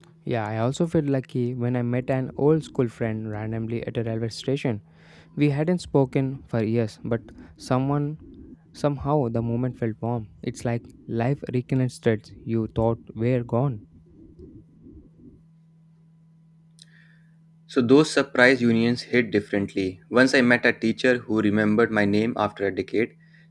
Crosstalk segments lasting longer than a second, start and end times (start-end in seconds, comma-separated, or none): none